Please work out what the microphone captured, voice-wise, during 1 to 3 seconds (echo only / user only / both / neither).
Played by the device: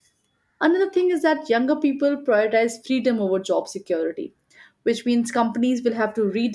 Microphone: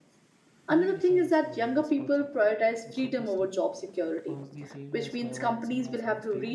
both